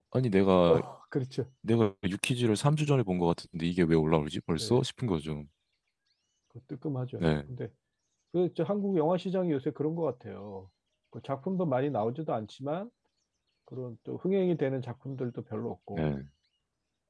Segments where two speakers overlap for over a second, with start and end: none

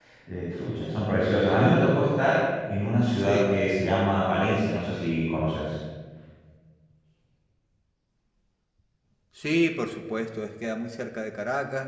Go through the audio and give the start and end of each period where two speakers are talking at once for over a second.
none

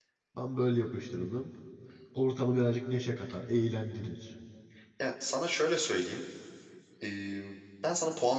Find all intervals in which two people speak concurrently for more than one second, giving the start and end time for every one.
none

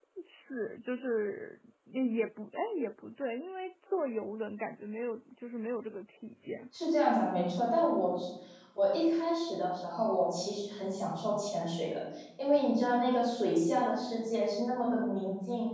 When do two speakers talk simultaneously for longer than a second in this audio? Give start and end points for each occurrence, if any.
none

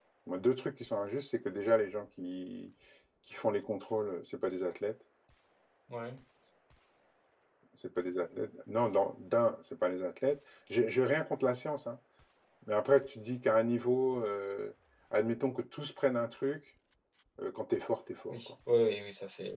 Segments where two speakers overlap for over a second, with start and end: none

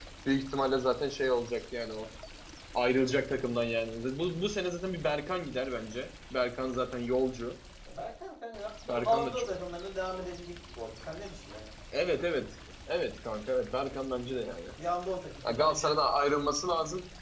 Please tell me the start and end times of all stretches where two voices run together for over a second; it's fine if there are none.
none

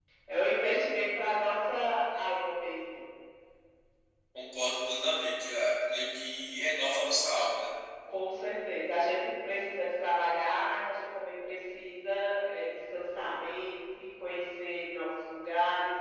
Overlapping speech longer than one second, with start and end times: none

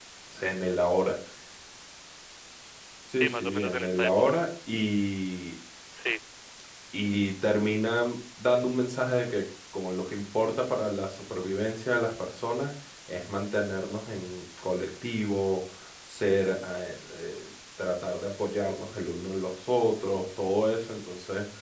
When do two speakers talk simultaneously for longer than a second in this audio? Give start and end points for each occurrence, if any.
3.1-4.4

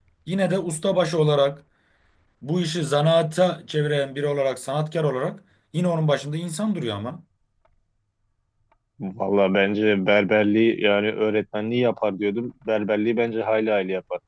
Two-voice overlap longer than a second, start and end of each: none

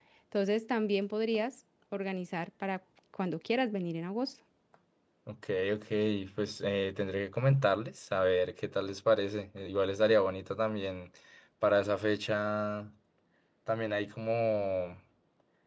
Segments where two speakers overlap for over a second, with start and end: none

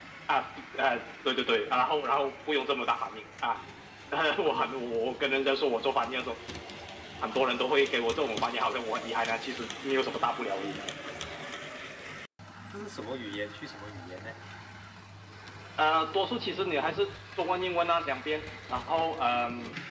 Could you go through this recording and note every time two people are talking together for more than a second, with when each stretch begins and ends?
none

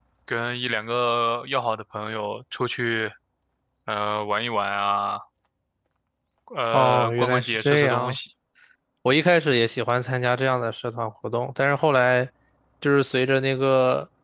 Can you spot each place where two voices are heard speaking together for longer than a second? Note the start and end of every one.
6.7-8.2

